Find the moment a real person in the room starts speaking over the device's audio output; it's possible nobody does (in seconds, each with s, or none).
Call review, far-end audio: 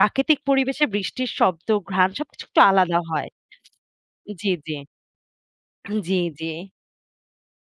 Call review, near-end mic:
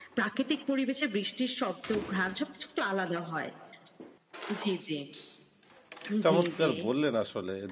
6.2 s